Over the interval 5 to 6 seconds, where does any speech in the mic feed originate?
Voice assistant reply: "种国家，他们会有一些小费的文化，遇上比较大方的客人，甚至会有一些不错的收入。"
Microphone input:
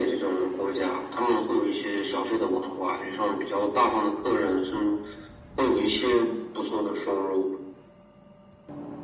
echo only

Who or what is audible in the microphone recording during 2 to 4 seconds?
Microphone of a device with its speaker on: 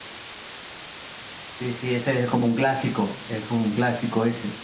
echo only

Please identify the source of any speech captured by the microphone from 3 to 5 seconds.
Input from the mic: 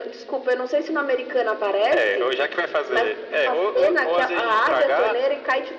echo only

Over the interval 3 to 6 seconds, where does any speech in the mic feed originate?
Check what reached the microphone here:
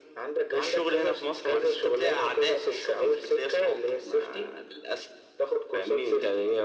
echo only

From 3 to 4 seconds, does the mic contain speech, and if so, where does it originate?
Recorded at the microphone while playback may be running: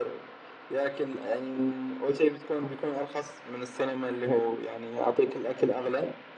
echo only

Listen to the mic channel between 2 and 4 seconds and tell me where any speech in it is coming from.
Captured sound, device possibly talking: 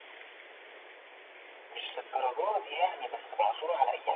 echo only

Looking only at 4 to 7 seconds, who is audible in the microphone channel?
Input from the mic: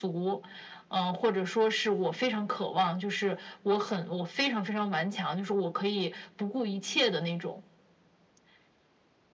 echo only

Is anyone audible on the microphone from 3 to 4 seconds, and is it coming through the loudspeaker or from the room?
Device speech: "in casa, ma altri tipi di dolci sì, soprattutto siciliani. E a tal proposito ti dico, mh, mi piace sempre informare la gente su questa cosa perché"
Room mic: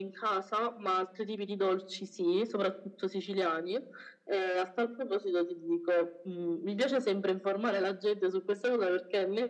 echo only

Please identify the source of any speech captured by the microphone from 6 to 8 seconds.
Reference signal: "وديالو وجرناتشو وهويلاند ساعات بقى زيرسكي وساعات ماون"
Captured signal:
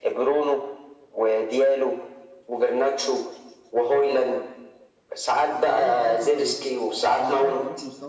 both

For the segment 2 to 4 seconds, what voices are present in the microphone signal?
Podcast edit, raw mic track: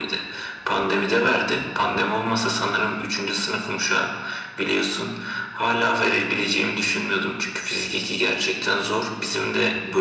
echo only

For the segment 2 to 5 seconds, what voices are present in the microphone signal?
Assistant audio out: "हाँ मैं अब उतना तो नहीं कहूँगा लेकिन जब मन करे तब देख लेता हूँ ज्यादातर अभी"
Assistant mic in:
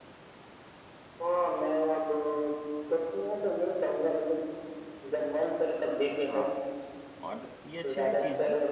echo only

